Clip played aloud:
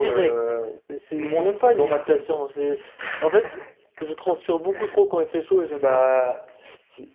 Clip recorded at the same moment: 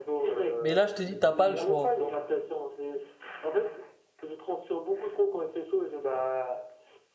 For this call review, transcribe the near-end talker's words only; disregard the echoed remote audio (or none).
Mais là, je te dis, t'as pas le choix.